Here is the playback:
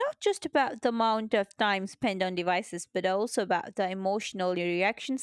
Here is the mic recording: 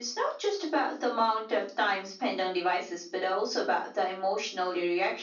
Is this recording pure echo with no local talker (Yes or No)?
Yes